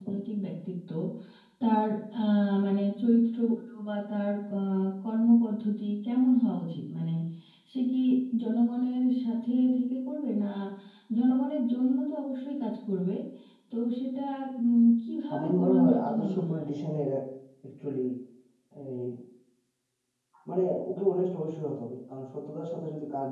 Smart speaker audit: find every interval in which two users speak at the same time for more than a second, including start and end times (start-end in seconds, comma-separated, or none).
15.3-16.6